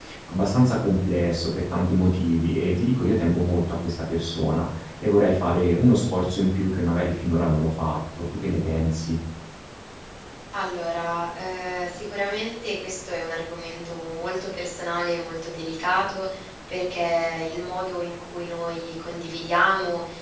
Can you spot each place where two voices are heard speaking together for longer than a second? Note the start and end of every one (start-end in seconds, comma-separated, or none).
none